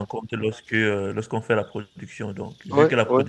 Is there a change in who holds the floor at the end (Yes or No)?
No